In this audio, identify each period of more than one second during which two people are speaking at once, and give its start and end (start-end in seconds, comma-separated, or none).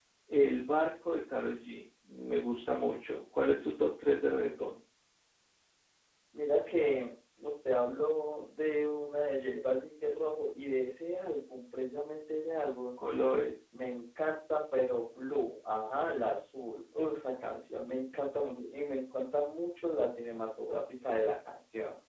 none